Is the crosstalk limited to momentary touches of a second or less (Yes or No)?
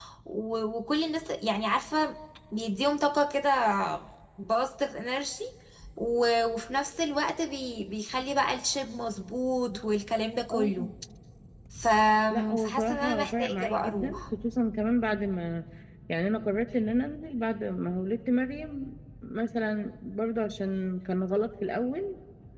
No